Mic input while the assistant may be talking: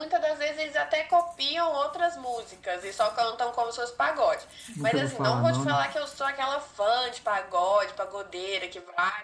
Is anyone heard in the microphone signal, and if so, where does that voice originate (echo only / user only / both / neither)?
both